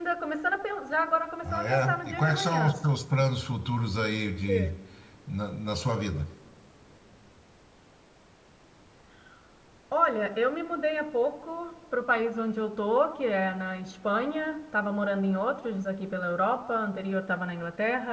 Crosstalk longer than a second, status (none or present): present